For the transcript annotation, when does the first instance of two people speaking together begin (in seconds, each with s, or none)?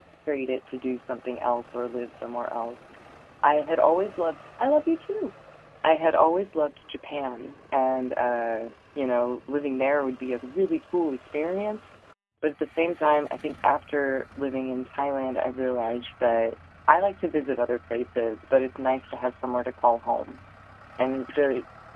none